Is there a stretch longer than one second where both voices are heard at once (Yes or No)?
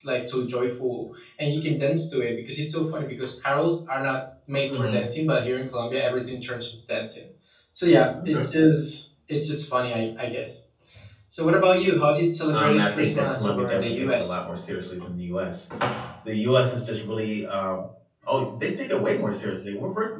Yes